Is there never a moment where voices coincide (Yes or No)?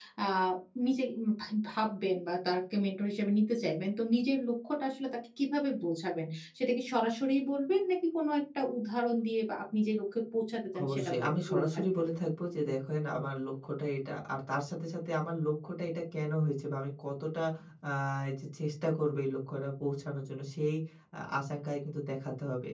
No